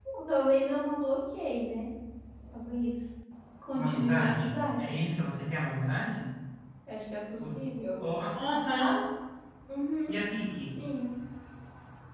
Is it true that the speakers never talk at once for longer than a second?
No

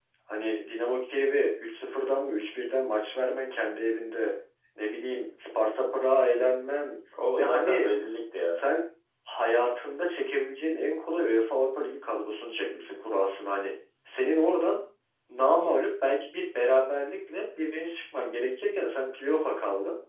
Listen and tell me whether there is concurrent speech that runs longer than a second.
No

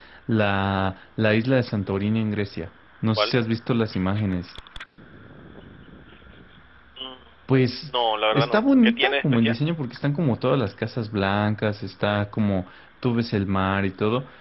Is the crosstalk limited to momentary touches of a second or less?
No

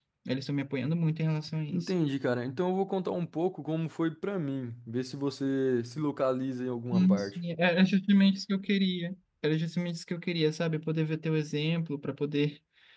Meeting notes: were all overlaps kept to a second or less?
Yes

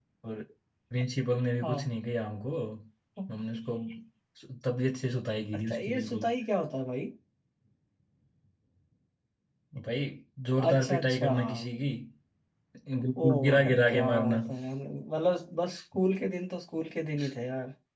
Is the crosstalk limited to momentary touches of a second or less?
No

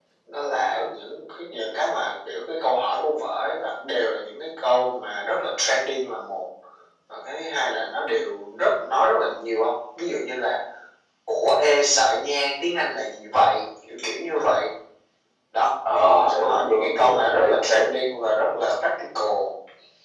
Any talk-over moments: Yes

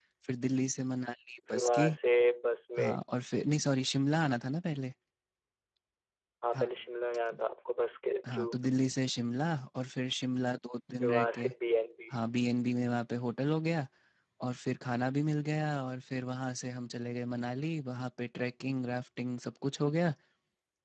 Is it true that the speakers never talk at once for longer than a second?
Yes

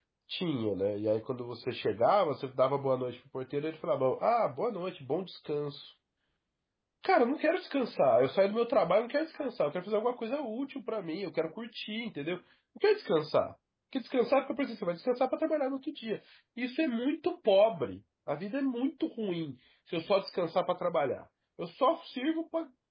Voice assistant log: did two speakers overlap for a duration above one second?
No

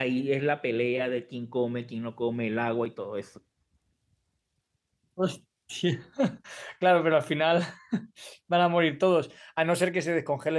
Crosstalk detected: No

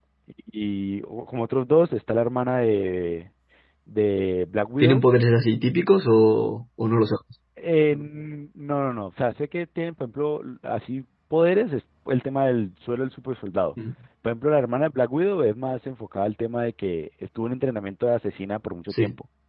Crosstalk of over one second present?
No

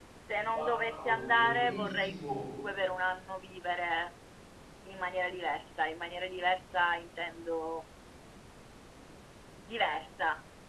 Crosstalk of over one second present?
Yes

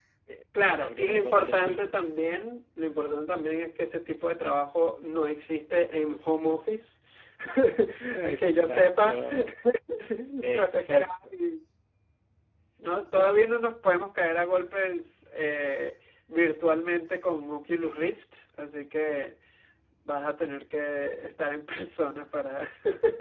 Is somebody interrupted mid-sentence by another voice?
Yes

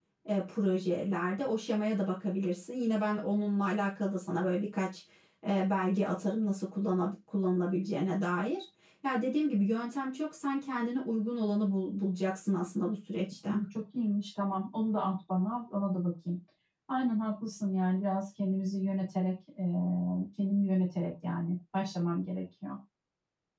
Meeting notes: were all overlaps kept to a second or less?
Yes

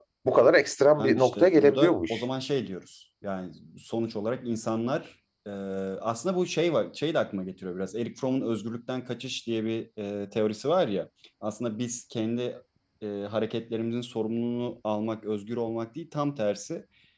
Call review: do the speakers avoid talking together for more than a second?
No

